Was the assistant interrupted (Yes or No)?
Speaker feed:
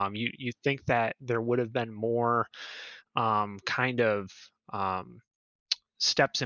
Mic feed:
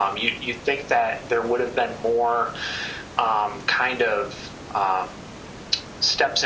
No